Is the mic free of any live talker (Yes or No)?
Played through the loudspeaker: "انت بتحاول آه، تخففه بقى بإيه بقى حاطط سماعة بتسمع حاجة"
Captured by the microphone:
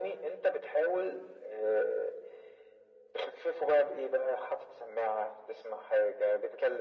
Yes